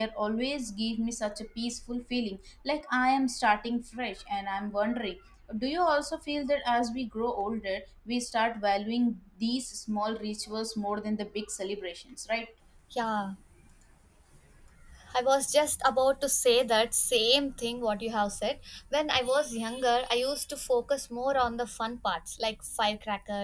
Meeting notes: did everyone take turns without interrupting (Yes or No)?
Yes